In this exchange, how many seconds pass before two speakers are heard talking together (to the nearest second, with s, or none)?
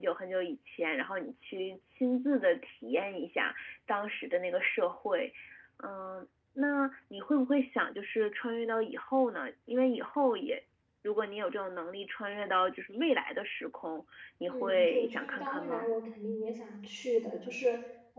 14 s